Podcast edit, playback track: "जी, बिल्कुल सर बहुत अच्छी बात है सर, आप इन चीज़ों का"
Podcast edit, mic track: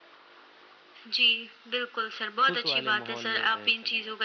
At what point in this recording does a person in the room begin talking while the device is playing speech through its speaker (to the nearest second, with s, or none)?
2 s